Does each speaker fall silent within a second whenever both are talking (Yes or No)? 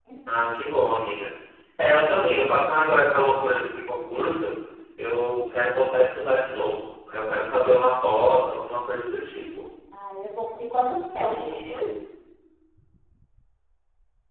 Yes